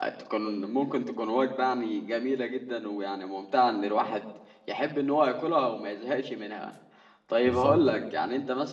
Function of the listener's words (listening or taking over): listening